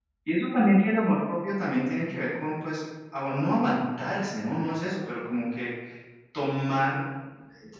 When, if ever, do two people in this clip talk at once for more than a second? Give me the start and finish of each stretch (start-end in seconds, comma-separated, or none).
none